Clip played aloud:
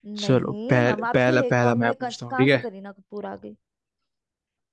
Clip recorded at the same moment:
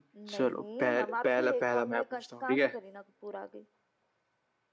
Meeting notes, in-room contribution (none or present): none